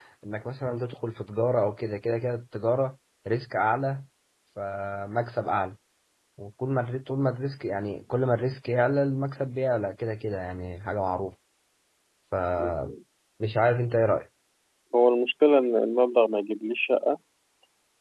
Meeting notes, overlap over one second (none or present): none